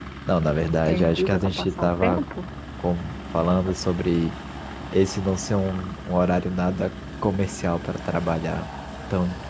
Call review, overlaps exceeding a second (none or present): present